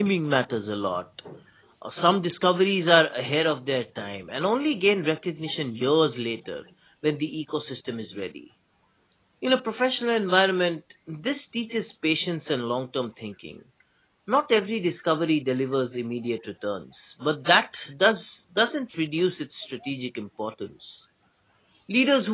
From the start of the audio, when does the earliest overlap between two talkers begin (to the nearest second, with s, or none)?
none